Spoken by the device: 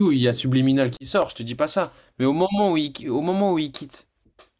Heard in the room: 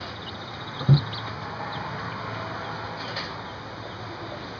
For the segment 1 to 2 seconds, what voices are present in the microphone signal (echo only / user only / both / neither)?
neither